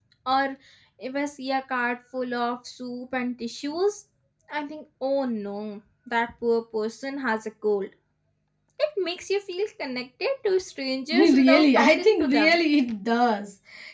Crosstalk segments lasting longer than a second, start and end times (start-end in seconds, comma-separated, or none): 11.1-12.6